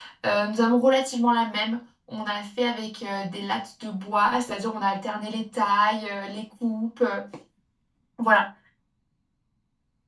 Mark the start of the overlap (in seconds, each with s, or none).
none